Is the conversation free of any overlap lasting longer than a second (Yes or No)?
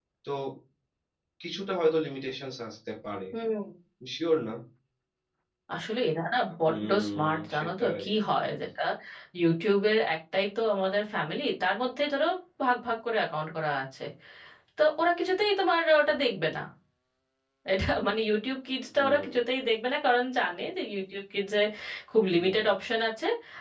No